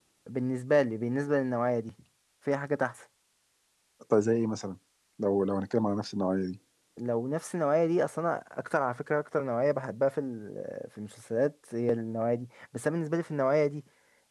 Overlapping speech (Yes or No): No